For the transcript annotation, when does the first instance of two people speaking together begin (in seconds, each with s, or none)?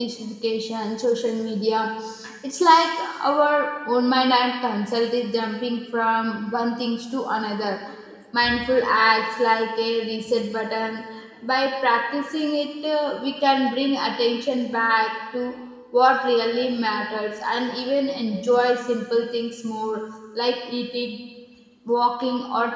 none